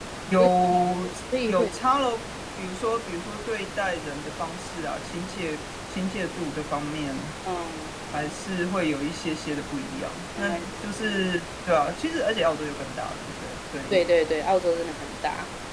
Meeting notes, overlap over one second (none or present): none